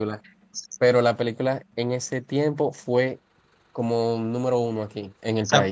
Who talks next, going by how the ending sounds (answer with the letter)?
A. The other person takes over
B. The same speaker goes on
A